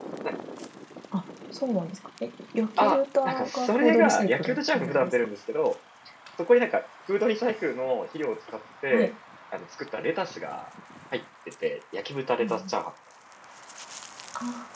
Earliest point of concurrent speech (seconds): 2.8 s

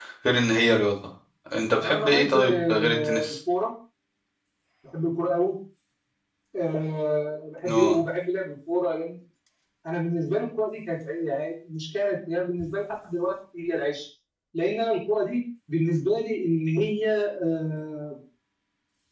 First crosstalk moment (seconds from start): 1.8 s

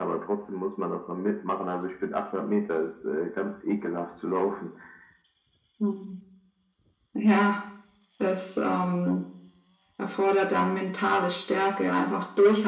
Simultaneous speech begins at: none

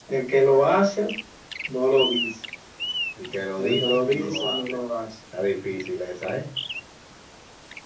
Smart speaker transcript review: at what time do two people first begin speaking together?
3.6 s

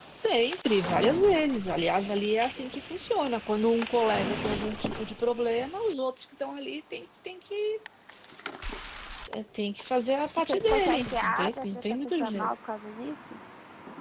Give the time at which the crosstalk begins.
10.4 s

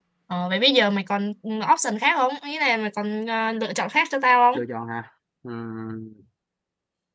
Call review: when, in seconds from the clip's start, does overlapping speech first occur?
none

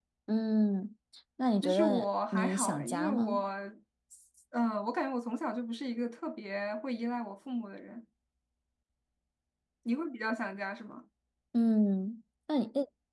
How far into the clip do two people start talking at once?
1.6 s

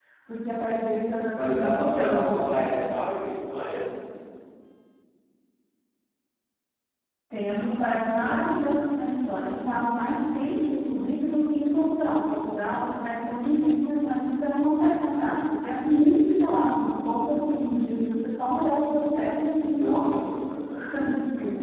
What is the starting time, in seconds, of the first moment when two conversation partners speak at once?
1.3 s

